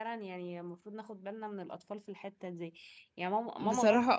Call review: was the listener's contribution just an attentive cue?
Yes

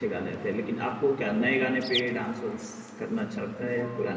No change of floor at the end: No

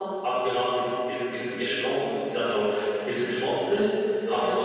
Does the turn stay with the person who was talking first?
Yes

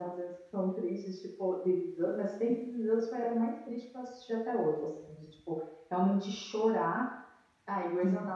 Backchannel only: Yes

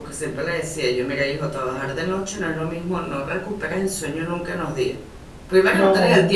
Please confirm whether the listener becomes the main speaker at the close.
No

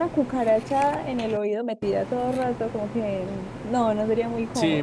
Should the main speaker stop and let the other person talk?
Yes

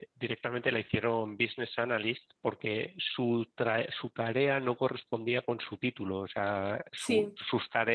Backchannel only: Yes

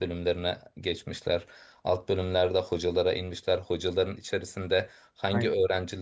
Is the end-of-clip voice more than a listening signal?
No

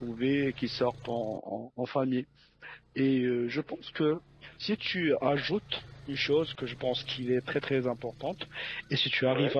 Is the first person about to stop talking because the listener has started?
No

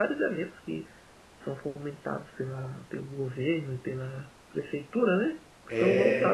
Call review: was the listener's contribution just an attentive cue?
Yes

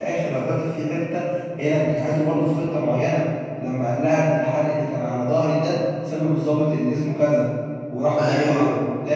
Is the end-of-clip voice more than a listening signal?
No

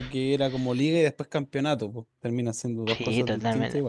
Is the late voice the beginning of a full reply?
Yes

